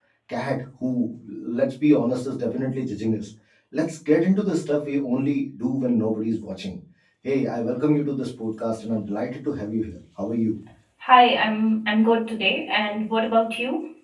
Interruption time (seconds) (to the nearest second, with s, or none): none